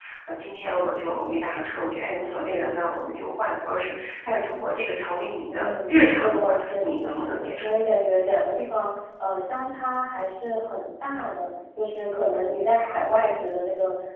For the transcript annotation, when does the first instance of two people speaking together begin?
5 s

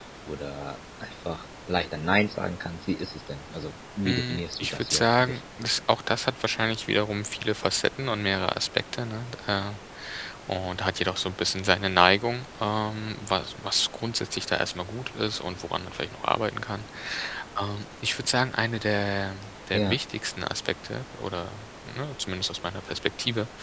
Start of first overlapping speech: 4 s

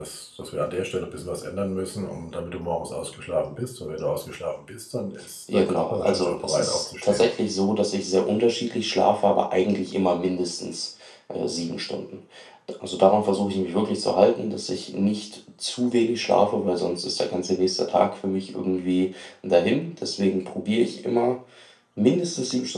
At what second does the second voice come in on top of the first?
5 s

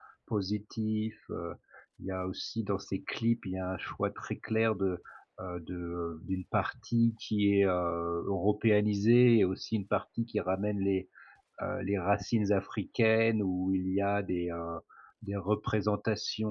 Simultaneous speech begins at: none

